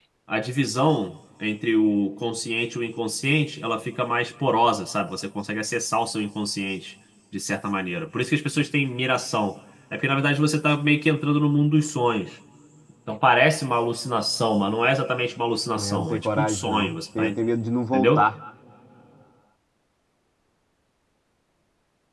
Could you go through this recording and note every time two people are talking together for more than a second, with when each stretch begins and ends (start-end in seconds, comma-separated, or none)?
15.8-17.4